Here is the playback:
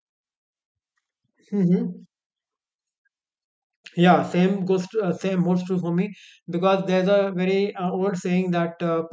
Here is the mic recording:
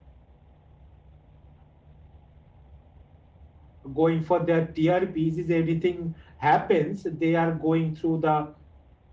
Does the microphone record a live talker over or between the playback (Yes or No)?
Yes